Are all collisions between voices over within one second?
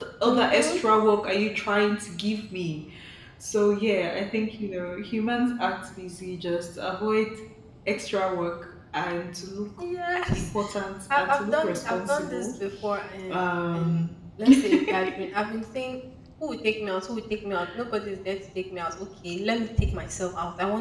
No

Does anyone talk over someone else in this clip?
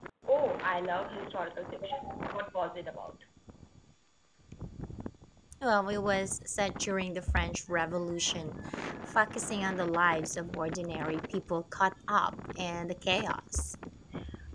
No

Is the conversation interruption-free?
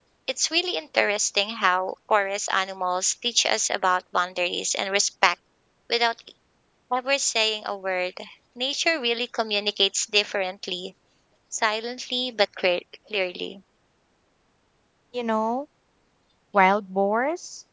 Yes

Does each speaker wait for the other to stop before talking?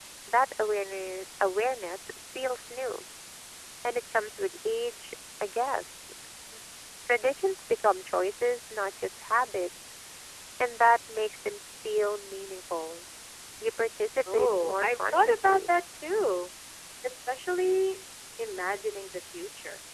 No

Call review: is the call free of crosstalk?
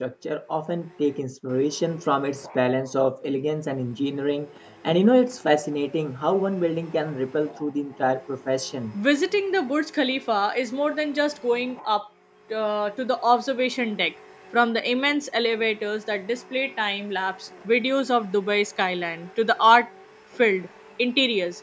Yes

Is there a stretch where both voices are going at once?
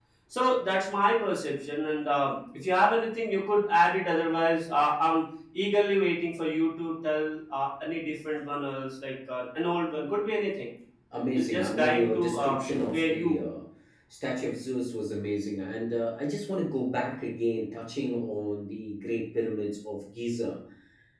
Yes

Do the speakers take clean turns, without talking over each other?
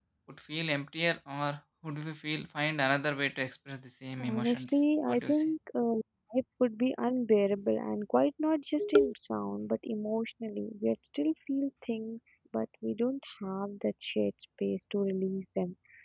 No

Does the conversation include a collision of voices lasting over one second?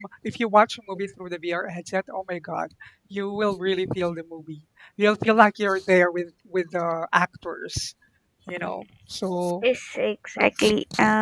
No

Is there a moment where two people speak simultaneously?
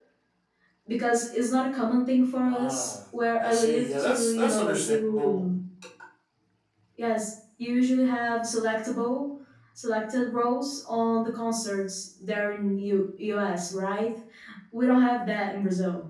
Yes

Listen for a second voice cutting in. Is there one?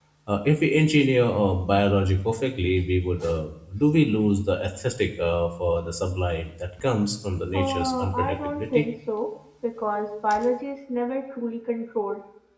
Yes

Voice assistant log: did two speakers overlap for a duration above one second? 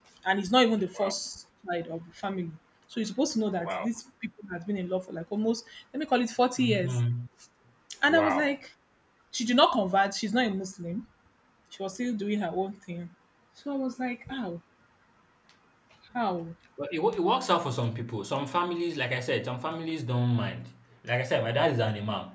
No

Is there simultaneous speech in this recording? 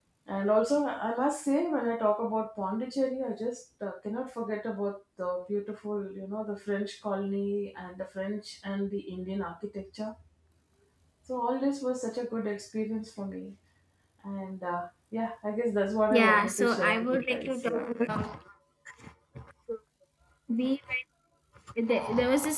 Yes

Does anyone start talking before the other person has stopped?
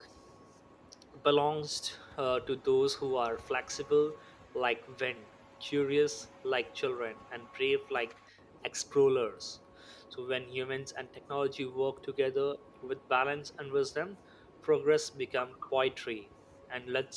No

